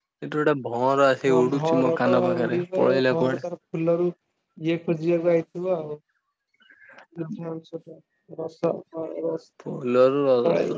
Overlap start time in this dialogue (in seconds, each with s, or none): 1.3 s